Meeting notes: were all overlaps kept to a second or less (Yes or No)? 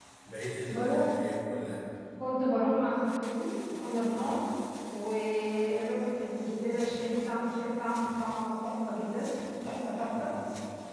Yes